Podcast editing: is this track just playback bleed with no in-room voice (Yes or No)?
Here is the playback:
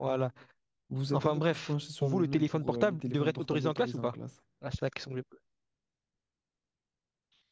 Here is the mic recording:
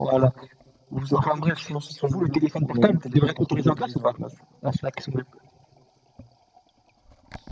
Yes